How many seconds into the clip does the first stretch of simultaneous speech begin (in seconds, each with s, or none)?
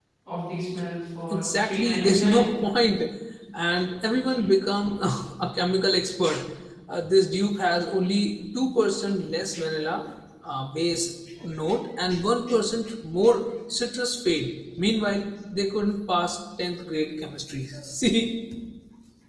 1.3 s